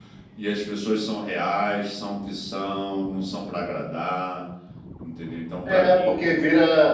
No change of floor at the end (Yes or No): No